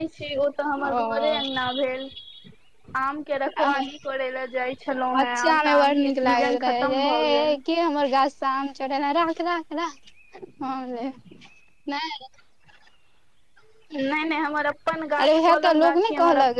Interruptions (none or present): present